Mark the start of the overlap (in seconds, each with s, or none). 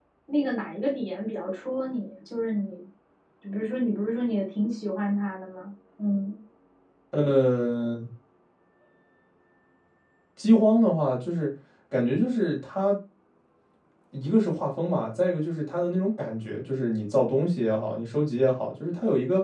none